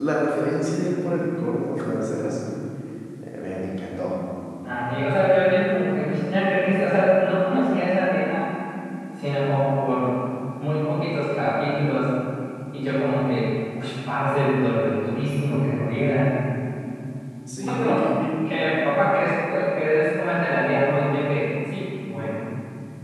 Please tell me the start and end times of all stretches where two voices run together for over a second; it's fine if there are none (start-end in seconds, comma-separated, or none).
none